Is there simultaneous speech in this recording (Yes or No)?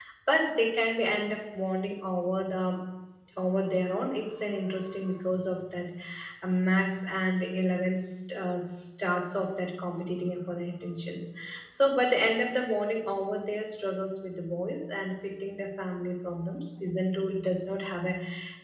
No